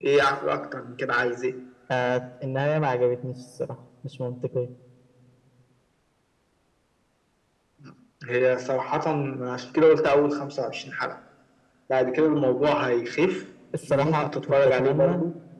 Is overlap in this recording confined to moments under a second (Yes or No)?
No